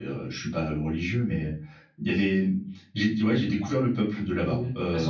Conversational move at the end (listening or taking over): taking over